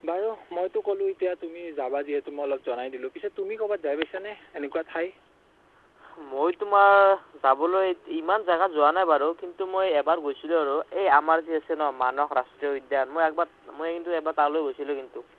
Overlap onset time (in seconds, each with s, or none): none